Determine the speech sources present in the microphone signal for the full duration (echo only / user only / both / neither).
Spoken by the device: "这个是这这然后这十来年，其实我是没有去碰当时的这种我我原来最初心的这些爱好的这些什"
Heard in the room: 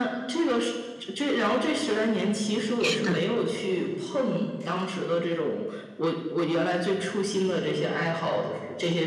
both